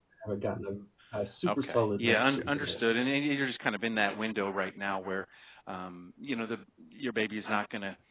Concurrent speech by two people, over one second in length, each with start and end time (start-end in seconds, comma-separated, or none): 1.5-2.8